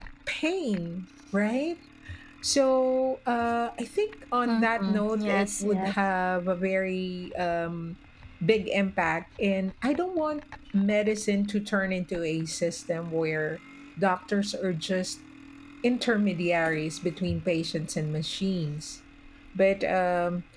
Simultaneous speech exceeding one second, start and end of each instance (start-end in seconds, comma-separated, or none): 4.4-5.9